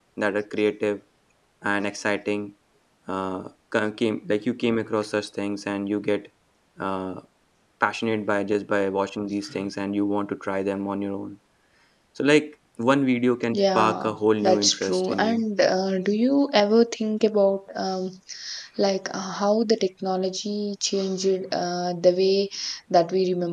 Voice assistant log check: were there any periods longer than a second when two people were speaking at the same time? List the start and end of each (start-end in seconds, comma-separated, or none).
13.5-15.4